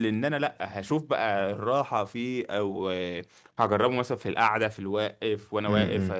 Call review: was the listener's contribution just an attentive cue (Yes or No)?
Yes